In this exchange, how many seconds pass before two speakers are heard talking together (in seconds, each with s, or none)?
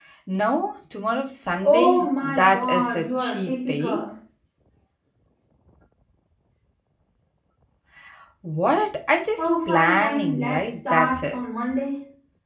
1.6 s